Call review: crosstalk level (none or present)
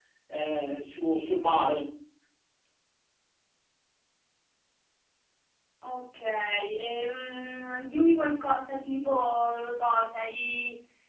none